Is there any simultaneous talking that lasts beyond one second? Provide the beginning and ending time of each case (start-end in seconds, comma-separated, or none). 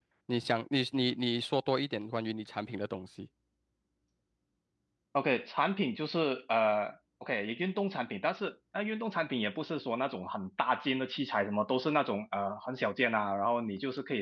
none